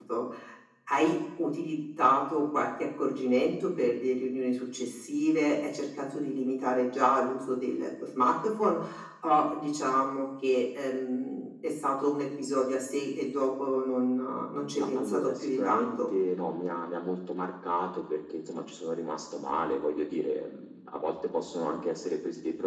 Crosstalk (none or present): present